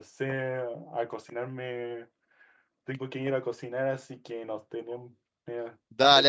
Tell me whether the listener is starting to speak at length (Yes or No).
Yes